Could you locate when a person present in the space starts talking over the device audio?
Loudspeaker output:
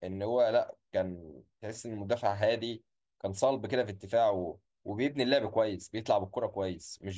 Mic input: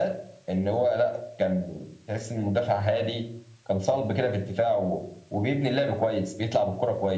none

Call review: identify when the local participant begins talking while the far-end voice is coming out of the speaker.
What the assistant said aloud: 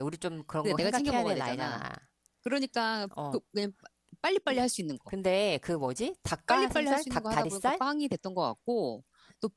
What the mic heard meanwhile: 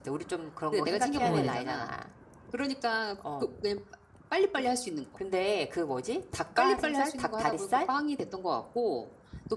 1.2 s

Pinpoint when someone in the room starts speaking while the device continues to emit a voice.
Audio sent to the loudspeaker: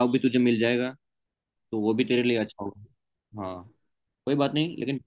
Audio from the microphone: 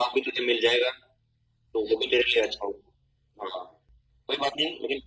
none

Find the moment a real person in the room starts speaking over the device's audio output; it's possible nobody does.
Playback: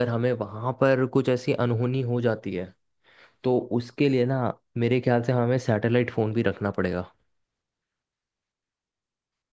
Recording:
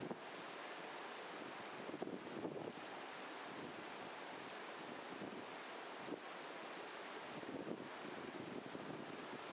none

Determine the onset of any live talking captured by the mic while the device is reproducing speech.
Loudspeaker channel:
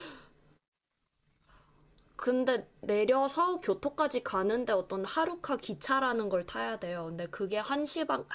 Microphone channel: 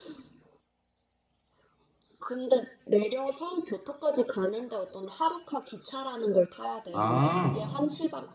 6.9 s

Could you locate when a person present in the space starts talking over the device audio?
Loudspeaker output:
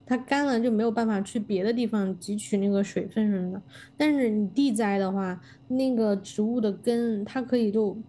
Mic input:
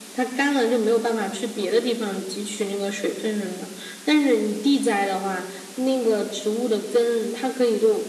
none

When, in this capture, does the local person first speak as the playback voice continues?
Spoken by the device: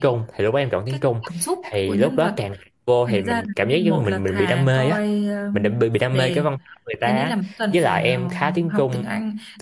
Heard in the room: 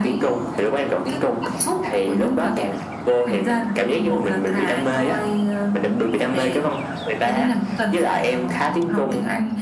none

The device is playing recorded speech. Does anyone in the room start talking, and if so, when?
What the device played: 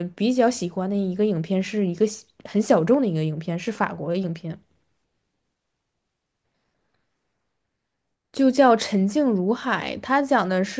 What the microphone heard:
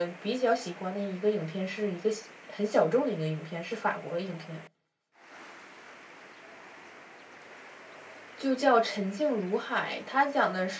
none

